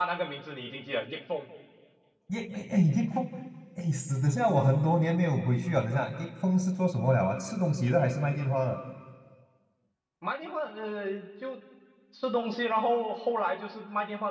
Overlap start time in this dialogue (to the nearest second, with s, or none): none